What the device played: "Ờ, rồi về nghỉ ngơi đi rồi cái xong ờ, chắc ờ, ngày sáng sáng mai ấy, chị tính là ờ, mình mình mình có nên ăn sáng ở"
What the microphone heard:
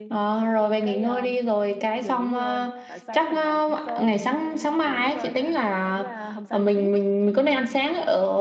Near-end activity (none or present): present